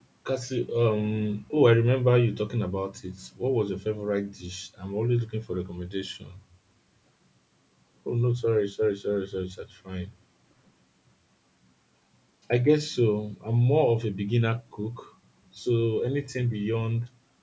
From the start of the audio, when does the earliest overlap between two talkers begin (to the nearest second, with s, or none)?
none